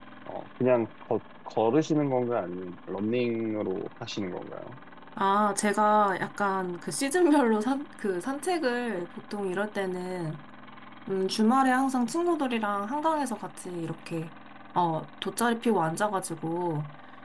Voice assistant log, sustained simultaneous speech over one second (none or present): none